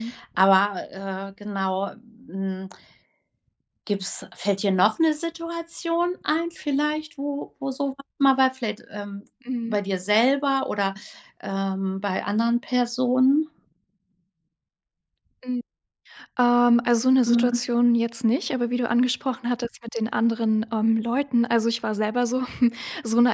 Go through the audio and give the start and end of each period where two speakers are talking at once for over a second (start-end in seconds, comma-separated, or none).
none